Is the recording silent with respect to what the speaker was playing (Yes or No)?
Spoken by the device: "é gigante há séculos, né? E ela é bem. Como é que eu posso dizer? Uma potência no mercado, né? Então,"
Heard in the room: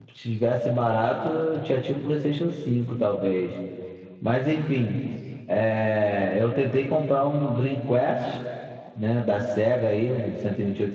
Yes